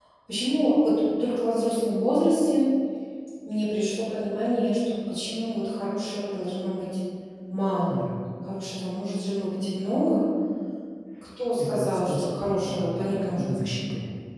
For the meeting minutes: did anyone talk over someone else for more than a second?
Yes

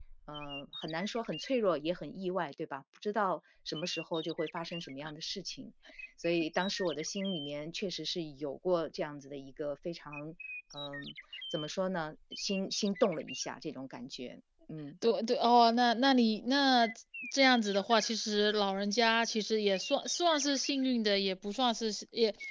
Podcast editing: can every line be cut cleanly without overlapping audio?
Yes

